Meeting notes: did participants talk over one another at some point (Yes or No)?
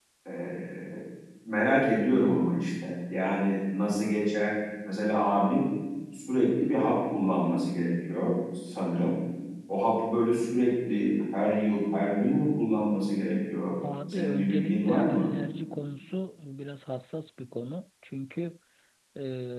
Yes